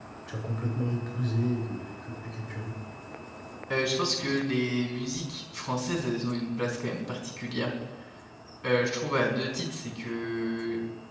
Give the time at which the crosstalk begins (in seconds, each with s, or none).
none